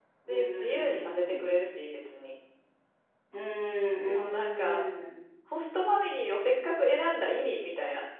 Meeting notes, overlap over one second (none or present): present